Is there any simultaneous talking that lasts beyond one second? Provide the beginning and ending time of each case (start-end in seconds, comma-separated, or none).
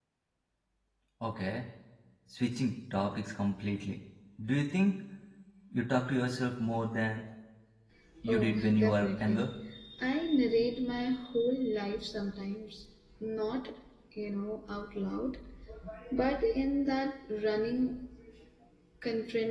8.2-9.5